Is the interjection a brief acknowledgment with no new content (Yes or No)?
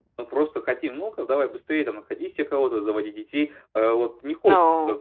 Yes